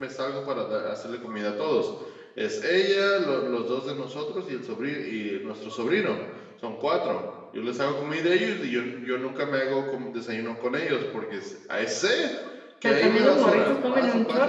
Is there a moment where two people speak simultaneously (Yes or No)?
Yes